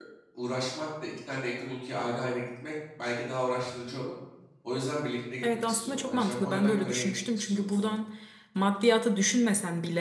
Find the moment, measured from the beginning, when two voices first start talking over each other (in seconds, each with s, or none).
5.4 s